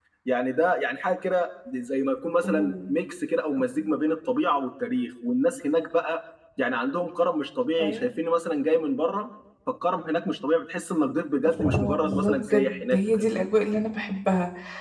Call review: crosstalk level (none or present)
present